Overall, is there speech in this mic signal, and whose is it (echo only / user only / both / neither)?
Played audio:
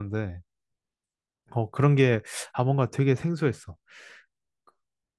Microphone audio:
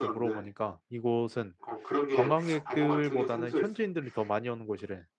both